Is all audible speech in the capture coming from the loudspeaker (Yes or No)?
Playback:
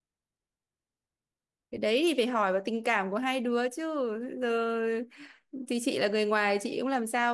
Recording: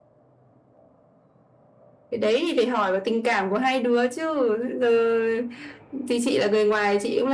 Yes